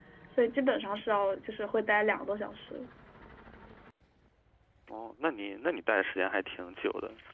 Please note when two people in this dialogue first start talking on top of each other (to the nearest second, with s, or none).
none